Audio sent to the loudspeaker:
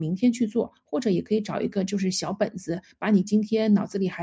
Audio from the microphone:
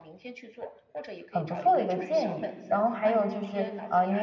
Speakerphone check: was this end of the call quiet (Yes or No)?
No